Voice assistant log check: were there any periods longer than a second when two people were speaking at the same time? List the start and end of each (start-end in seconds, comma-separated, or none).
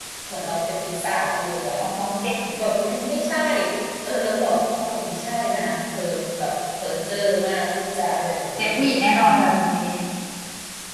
none